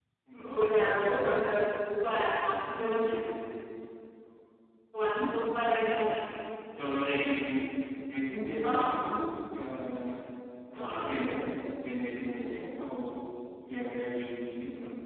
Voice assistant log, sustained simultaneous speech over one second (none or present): none